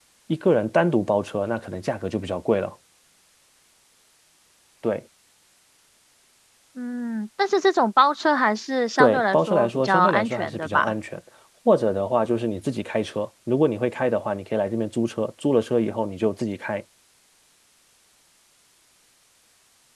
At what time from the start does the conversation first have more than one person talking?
9.0 s

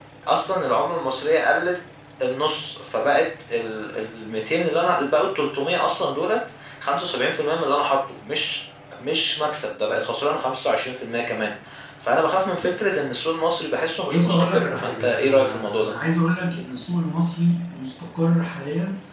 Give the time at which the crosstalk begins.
14.1 s

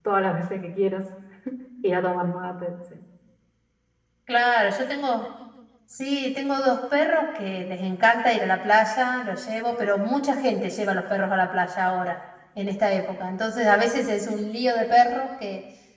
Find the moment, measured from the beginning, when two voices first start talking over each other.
none

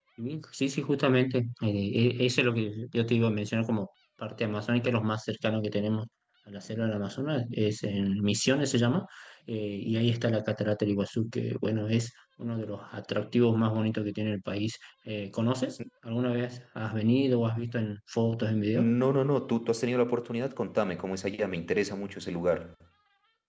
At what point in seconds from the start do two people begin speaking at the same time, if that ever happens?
none

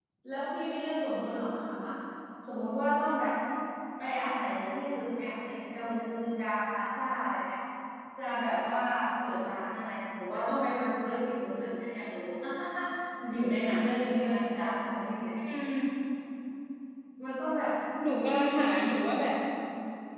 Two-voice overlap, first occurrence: none

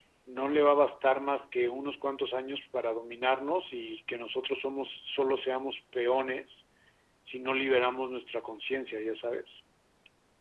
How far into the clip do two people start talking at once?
none

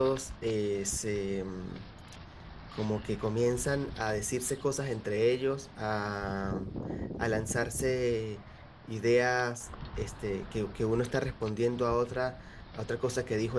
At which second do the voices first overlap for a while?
none

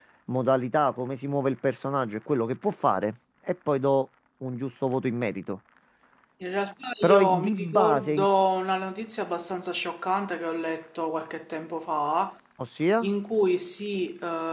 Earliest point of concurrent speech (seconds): 7.0 s

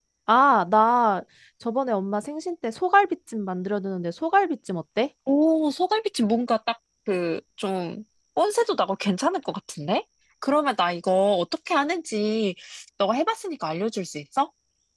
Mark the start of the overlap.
none

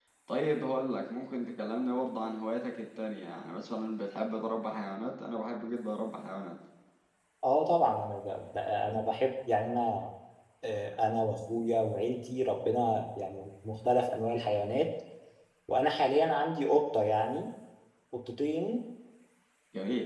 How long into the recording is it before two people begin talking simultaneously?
none

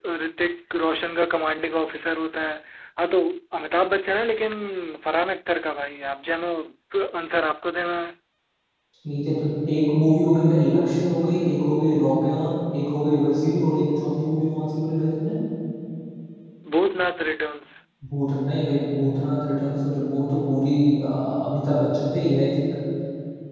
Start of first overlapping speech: none

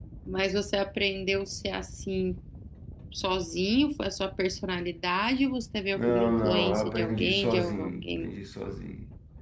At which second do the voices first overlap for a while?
5.9 s

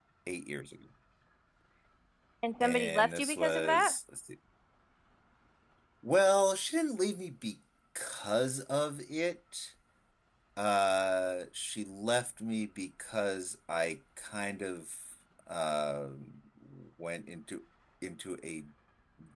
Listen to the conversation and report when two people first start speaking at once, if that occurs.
2.6 s

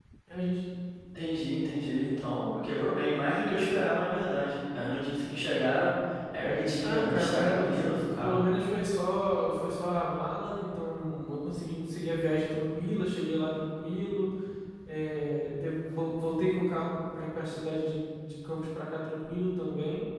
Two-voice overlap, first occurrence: 6.8 s

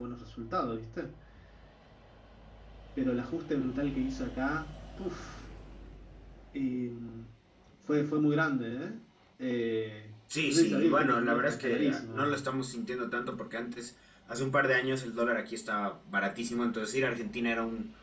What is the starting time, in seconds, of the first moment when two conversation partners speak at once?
10.3 s

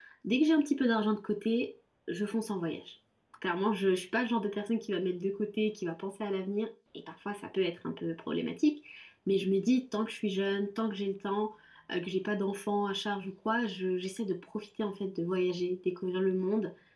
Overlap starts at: none

